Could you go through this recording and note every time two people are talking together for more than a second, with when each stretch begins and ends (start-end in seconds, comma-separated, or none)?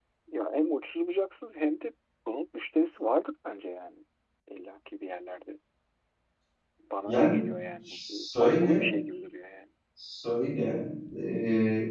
7.0-8.9